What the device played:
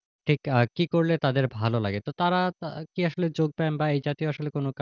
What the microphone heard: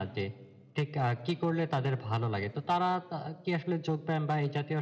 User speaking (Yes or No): No